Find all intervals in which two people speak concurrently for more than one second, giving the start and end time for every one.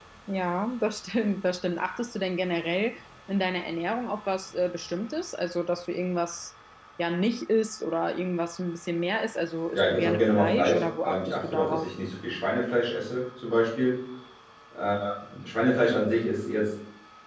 9.8-11.9

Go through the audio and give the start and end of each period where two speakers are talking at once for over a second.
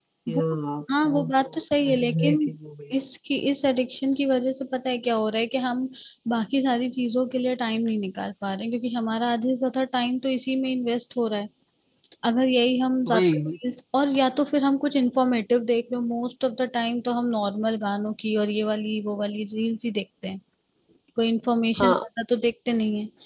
1.0-2.4

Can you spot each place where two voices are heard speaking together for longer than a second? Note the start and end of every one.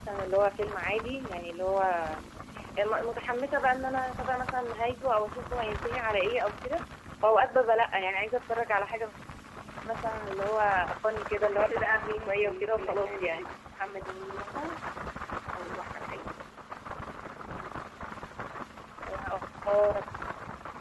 11.4-13.4

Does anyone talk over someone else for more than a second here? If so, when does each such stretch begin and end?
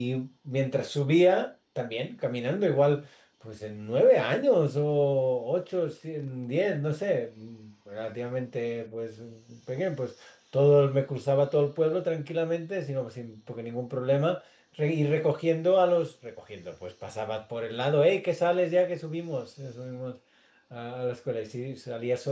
none

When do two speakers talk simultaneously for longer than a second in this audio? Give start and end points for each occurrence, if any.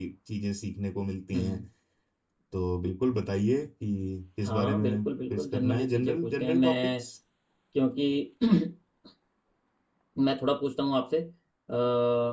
4.5-7.0

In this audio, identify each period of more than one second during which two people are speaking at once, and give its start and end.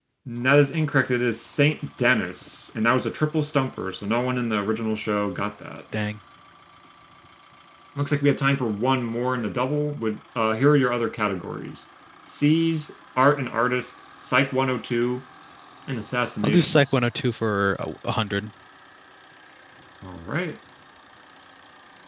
none

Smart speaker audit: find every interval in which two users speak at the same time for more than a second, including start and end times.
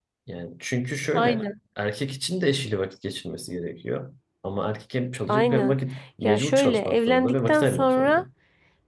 6.2-8.2

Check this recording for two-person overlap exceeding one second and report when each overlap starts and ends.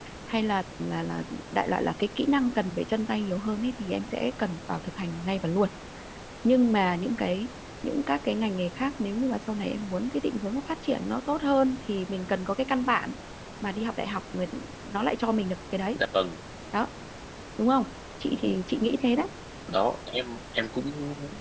none

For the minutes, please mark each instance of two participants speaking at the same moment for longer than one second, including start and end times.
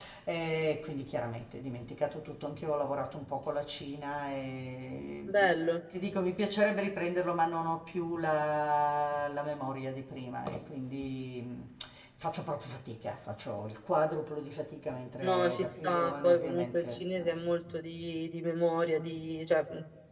15.2-17.3

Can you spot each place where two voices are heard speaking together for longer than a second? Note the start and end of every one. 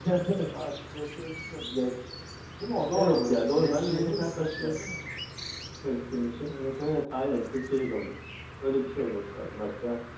2.9-4.7

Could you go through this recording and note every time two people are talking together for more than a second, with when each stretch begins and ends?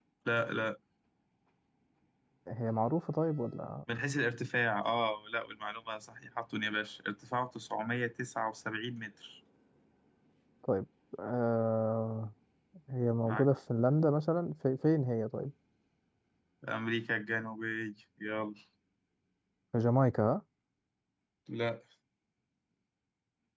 none

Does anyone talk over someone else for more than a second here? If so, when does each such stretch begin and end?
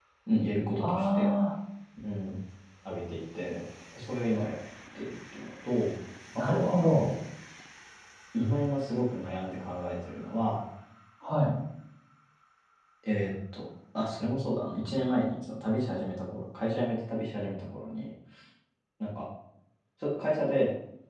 none

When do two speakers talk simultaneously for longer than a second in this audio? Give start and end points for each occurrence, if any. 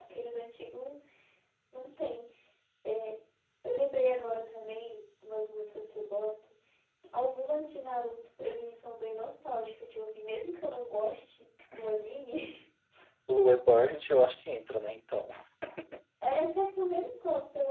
none

